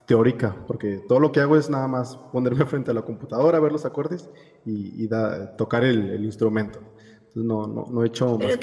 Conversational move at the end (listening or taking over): taking over